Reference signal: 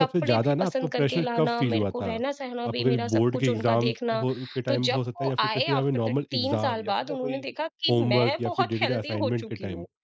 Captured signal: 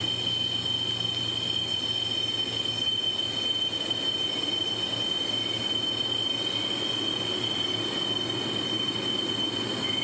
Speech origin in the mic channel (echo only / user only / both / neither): neither